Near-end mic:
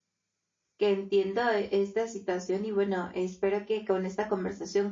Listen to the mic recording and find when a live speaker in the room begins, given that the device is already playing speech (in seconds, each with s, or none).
0.8 s